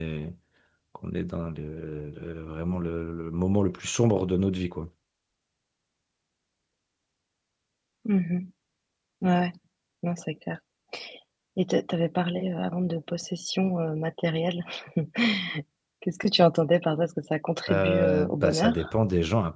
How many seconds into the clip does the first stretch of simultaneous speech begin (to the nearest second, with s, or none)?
18 s